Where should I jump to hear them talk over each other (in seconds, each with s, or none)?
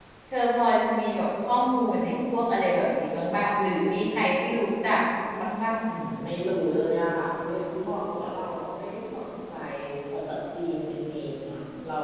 none